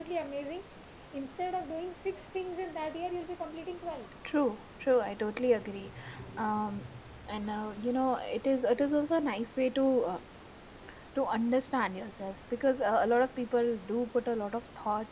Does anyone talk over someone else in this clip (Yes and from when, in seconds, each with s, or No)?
No